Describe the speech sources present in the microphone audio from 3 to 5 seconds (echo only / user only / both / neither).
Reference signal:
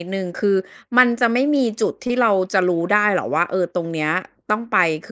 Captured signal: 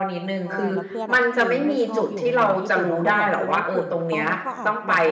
both